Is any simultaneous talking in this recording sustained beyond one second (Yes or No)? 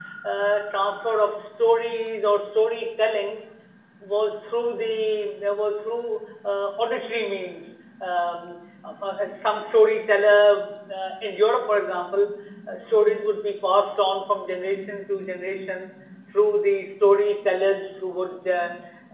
No